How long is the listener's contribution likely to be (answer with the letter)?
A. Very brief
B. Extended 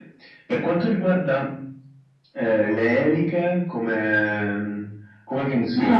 B